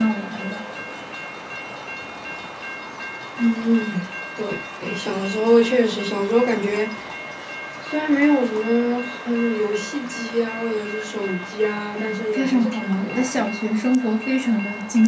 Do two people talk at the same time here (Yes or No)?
Yes